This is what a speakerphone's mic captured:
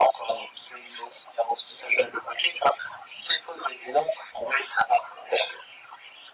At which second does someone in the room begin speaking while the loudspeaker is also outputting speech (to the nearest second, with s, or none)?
none